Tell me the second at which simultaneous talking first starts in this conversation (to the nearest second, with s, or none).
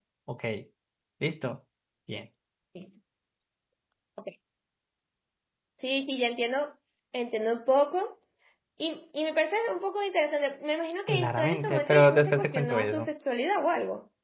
11 s